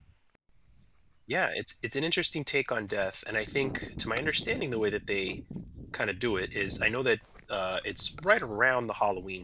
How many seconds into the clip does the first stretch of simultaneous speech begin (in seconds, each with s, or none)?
none